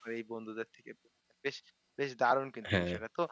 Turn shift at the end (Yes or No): No